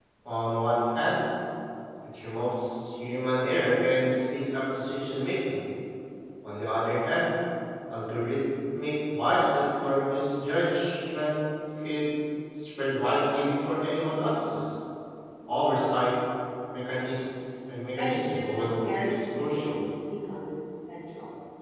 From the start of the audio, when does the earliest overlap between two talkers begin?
18.0 s

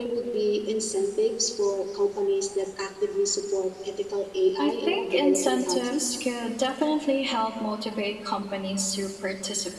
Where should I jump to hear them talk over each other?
4.6 s

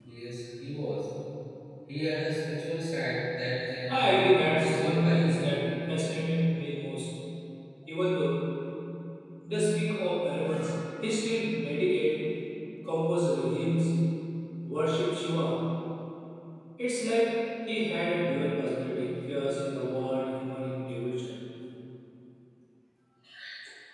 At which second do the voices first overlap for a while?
3.9 s

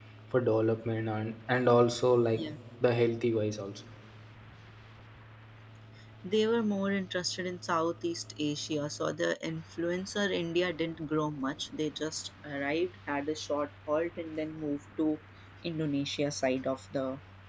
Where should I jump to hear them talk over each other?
none

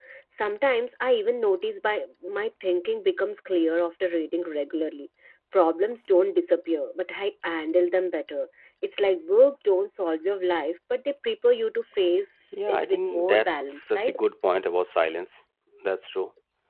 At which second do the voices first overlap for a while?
12.5 s

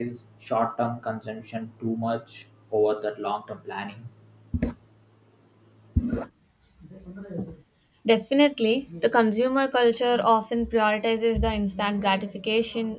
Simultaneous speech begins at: none

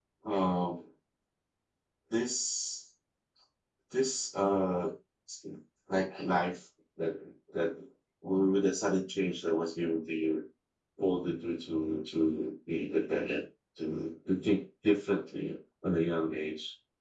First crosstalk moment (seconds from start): none

